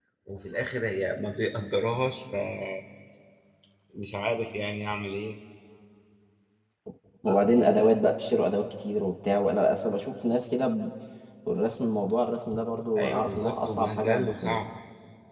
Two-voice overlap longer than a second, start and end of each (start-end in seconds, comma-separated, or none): 12.9-14.6